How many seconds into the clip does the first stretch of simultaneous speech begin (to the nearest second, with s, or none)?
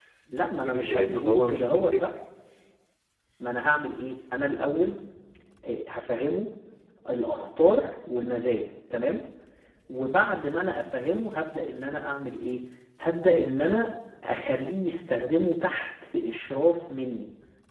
1 s